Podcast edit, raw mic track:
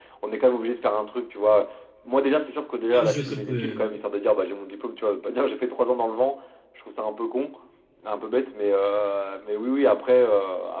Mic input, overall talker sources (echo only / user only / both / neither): both